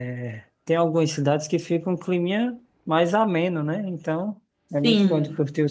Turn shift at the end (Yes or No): No